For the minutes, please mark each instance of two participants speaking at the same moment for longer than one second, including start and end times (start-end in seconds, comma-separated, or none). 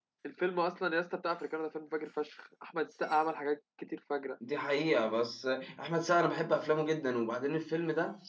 none